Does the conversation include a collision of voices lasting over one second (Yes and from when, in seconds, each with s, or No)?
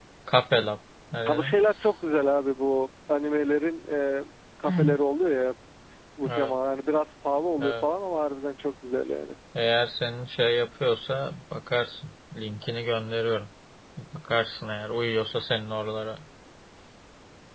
No